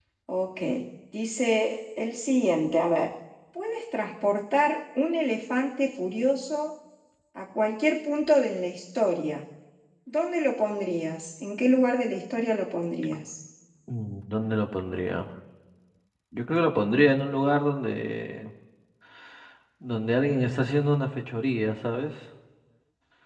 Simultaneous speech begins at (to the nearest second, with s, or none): none